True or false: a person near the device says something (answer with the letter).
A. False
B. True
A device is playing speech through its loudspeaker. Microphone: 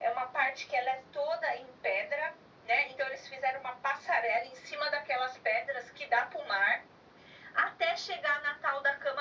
A